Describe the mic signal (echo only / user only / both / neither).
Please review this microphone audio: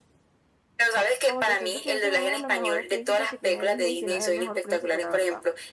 both